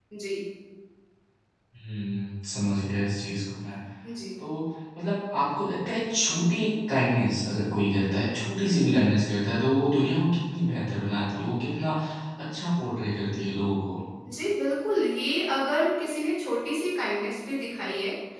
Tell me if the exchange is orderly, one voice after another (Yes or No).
Yes